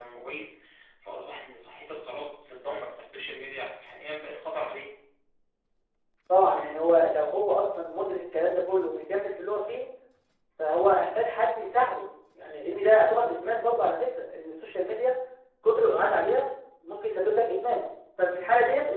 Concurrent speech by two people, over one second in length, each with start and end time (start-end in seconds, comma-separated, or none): none